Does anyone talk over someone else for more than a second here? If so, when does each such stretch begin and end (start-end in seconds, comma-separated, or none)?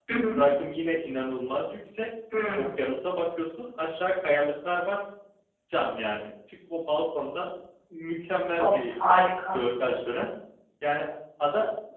none